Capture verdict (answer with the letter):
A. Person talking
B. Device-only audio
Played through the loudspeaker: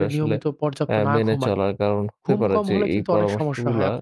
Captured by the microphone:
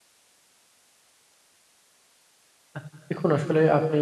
A